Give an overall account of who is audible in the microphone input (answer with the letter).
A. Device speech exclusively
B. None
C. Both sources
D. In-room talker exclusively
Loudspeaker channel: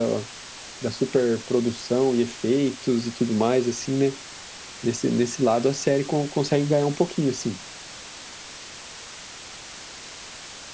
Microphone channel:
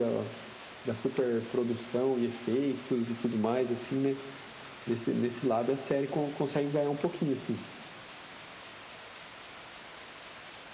A